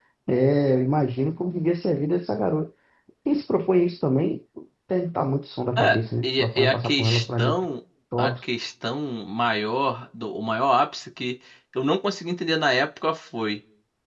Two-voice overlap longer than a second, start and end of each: 5.8-7.7

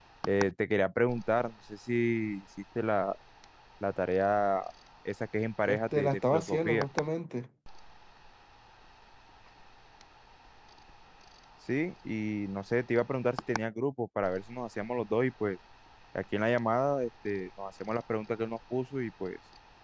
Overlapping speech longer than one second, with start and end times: 5.6-6.9

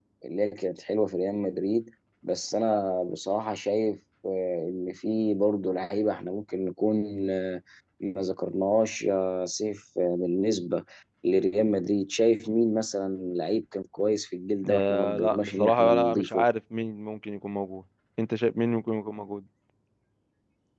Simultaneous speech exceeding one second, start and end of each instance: 14.7-16.4

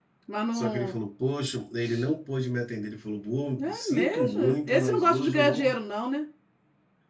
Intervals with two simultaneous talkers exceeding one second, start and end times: 3.6-5.8

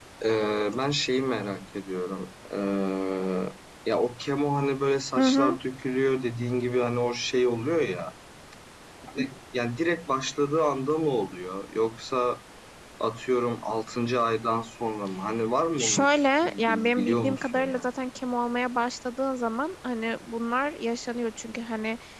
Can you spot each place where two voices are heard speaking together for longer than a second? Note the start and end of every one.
15.8-17.9

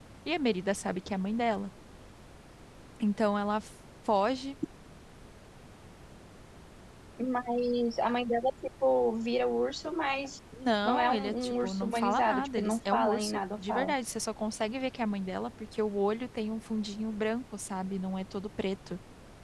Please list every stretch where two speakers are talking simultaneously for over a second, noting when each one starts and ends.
10.8-13.9

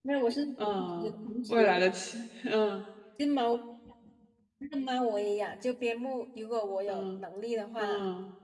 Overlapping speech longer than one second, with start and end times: none

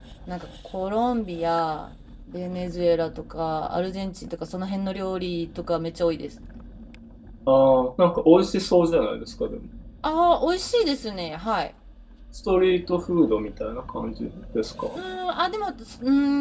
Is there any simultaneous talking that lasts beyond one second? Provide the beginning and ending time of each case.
none

